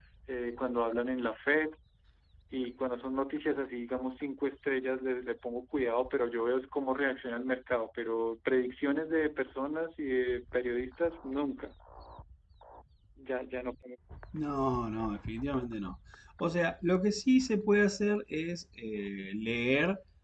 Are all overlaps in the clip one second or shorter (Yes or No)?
Yes